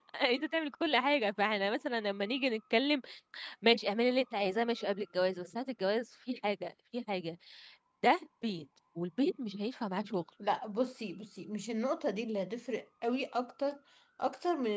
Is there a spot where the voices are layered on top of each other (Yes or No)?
No